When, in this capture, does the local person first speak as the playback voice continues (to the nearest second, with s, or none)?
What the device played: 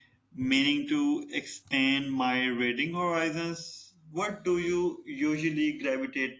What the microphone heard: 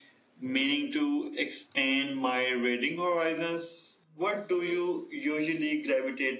none